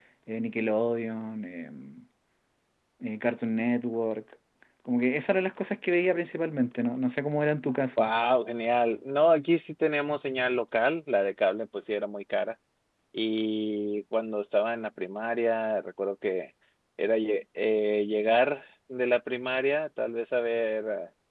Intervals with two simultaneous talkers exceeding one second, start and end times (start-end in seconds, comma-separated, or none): none